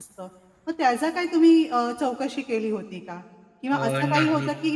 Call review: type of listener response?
listening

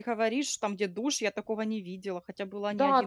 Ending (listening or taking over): taking over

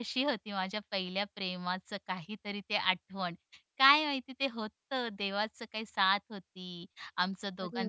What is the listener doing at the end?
listening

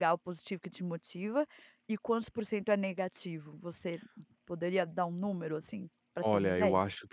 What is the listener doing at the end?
taking over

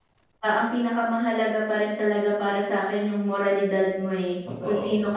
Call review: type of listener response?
listening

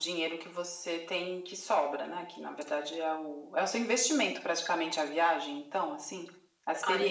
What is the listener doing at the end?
taking over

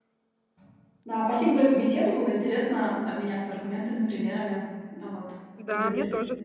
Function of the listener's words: taking over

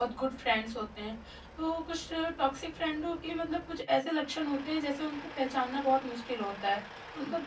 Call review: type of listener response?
listening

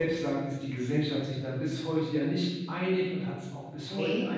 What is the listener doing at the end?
listening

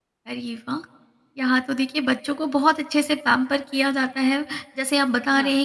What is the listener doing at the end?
listening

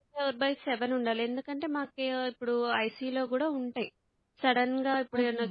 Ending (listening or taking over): listening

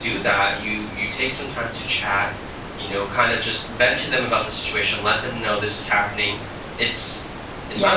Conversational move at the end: taking over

